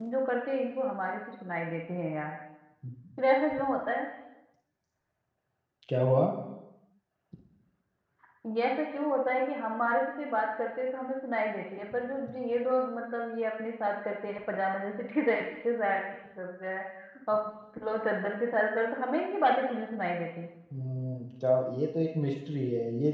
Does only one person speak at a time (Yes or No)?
Yes